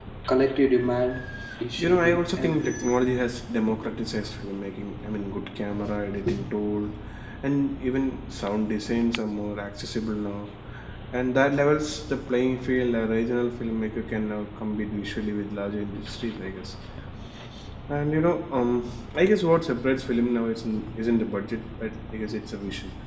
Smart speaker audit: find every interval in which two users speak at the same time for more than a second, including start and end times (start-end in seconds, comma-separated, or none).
1.8-3.0